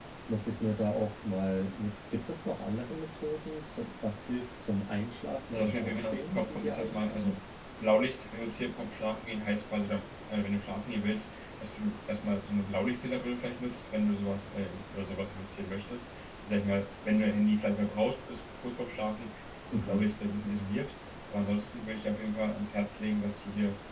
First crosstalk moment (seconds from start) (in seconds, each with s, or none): 5.5 s